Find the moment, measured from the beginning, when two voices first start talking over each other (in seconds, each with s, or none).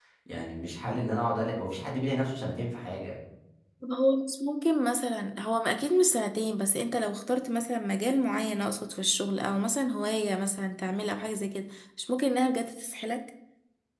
none